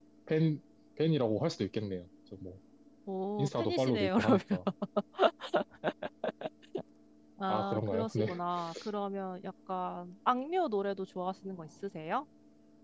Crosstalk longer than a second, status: present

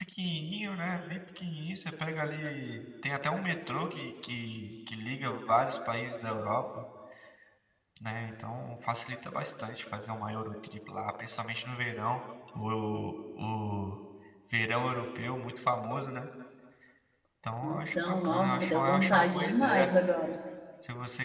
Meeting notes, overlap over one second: present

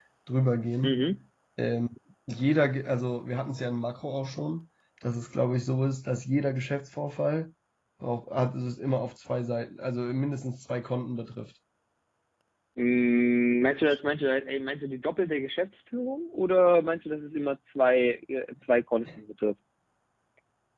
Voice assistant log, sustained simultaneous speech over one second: none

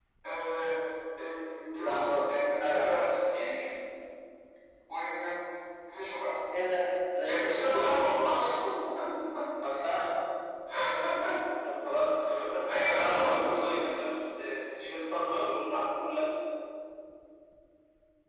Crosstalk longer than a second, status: present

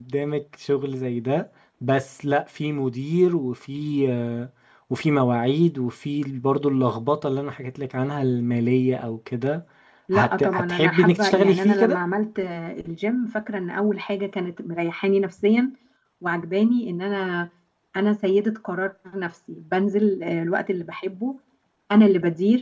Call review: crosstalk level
present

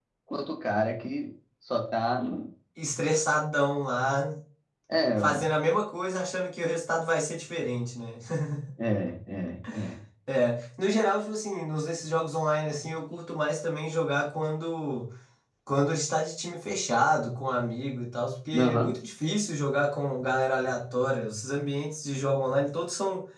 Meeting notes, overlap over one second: none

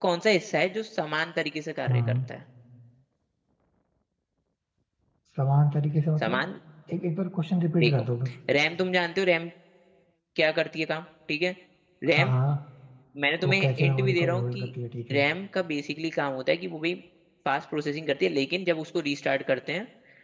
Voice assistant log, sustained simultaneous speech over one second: present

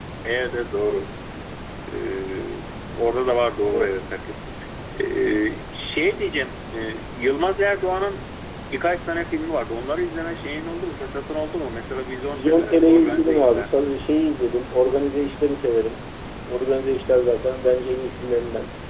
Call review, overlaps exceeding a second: present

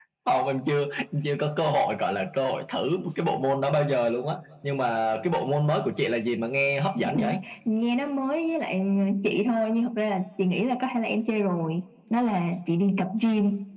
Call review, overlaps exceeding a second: none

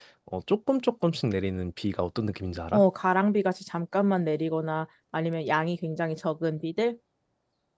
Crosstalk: none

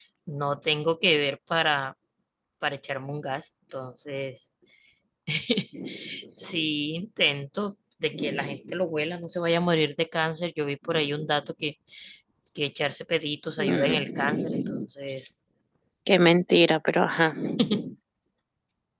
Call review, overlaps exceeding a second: present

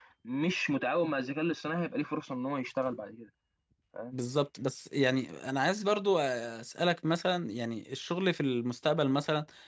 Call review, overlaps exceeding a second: none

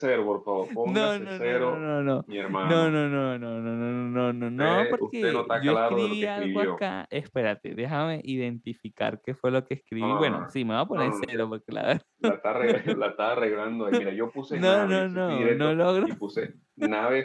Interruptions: present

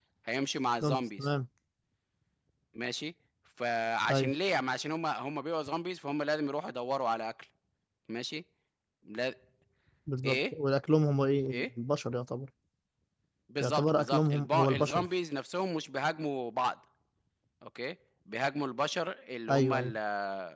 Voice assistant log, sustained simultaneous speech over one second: present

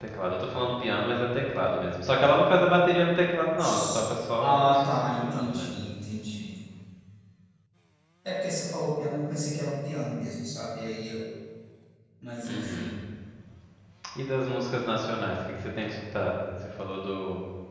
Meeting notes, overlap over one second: present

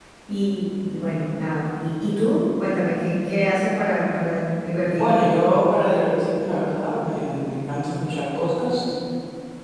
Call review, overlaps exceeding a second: none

